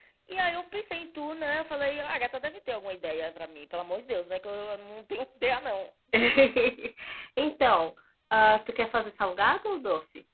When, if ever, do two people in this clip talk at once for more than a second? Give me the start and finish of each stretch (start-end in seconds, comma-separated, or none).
none